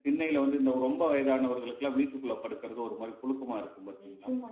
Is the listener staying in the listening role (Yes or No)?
No